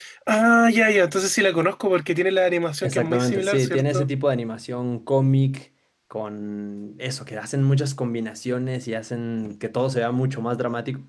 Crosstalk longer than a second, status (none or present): present